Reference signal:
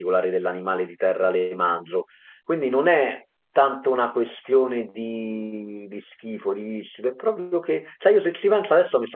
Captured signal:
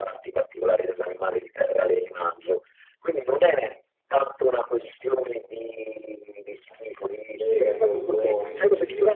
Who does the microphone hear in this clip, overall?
both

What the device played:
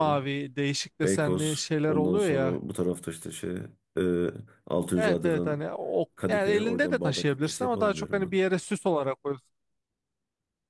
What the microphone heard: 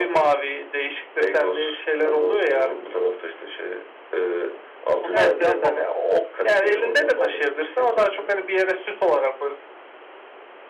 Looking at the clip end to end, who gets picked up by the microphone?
both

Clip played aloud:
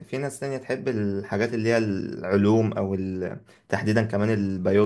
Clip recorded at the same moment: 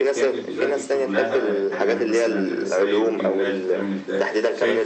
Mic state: both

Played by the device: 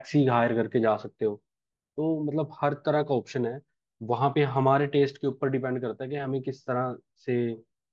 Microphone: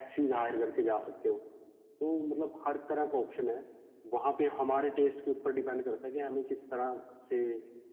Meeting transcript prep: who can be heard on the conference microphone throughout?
echo only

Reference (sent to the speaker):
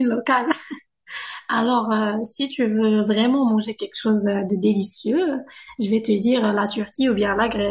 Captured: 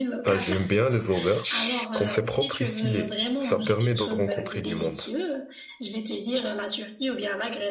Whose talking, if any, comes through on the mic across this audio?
both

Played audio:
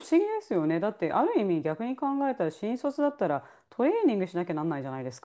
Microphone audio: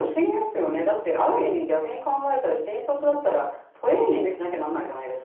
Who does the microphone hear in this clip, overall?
echo only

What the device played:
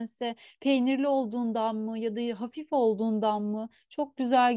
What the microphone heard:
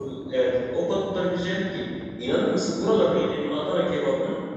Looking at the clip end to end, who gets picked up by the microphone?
user only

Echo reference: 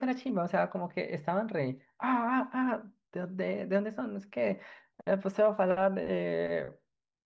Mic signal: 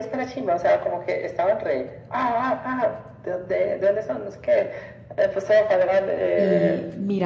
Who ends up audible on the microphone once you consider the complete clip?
both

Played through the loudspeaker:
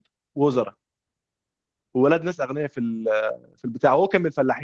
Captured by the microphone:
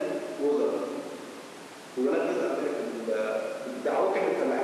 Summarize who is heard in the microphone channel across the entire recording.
echo only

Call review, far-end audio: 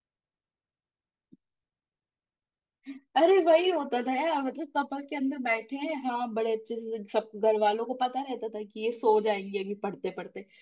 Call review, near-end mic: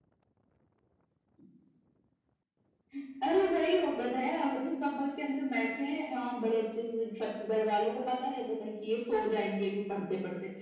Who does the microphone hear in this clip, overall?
echo only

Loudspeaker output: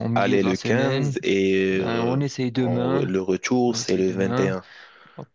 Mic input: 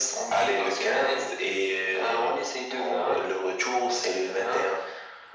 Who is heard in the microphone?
echo only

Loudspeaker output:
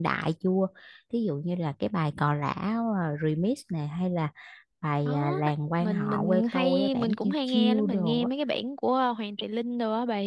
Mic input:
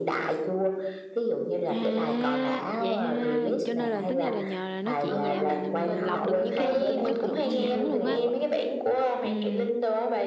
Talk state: both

